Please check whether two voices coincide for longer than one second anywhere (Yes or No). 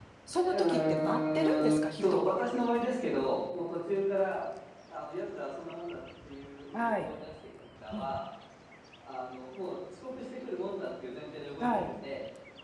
Yes